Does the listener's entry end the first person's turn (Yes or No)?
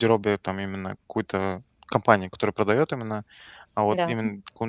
No